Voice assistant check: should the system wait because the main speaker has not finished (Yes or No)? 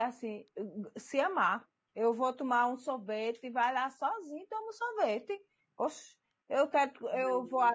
Yes